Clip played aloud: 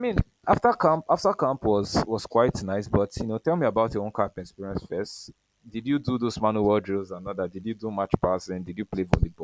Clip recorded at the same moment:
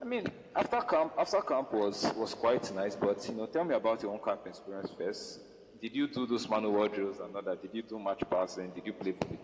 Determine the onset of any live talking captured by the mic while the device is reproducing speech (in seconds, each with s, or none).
none